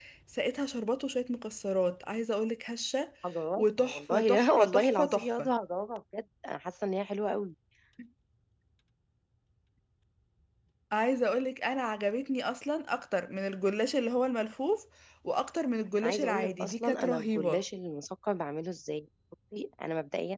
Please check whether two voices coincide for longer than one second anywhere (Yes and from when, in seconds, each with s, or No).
Yes, from 3.6 s